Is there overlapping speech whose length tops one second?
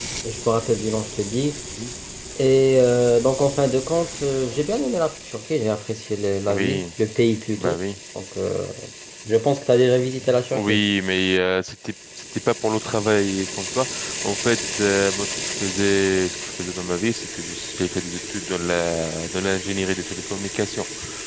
No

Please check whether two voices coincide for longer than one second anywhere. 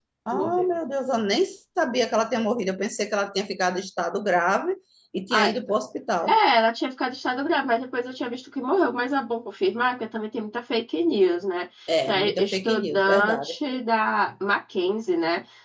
Yes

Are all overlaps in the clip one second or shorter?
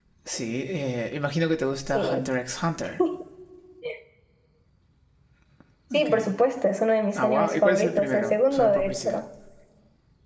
No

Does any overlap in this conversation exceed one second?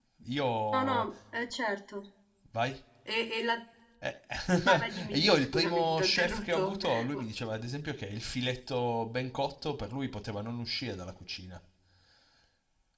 Yes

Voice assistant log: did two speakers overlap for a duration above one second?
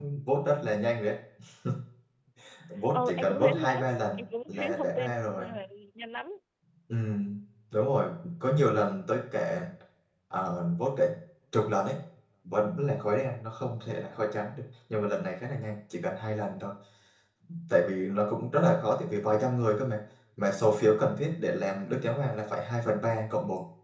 Yes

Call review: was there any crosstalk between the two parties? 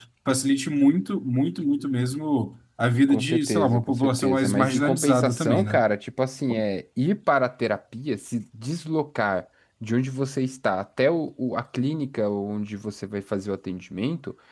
Yes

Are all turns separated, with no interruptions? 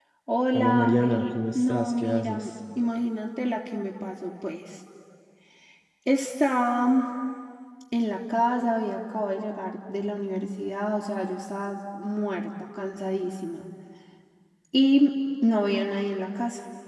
No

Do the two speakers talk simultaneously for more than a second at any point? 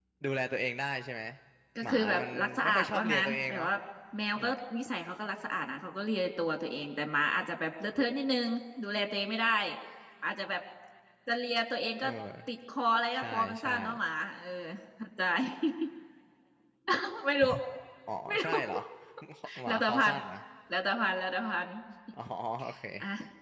Yes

